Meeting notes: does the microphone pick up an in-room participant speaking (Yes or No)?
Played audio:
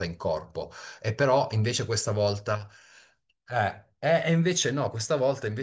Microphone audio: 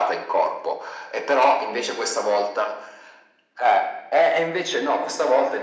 No